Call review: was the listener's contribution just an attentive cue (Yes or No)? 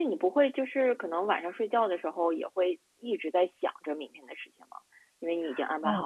No